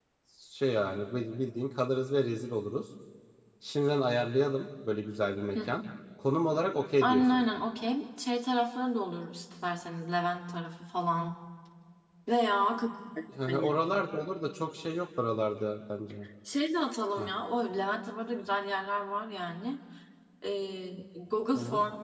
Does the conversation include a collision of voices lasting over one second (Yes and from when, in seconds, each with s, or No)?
No